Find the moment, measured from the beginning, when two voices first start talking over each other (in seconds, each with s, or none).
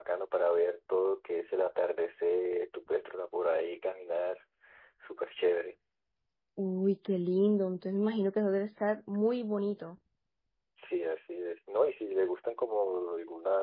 none